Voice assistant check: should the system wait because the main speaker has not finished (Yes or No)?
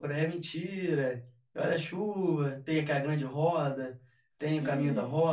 No